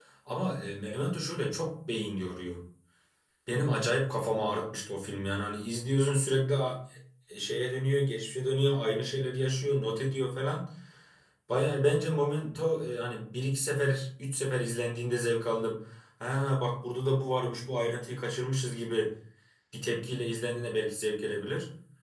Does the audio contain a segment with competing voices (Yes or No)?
No